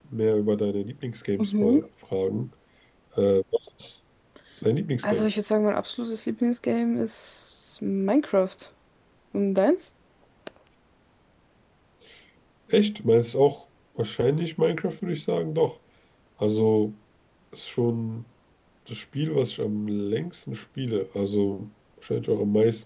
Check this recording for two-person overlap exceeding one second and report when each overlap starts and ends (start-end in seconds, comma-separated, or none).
none